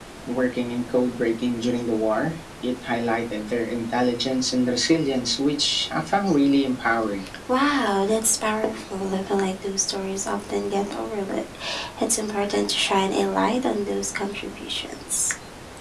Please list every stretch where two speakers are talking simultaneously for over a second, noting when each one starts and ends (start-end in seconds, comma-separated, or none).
none